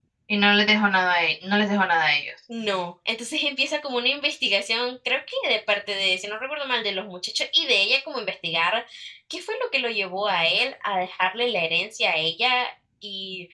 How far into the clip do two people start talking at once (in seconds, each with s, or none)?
none